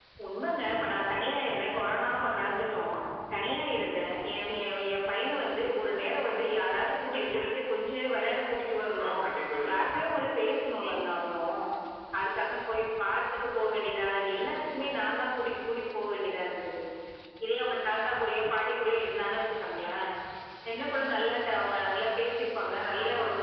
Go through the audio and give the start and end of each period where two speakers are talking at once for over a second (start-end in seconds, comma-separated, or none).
none